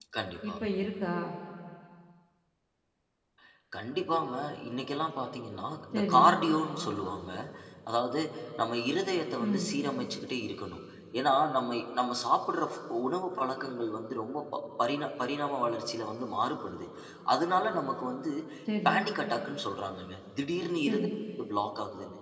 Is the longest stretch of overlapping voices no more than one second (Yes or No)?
Yes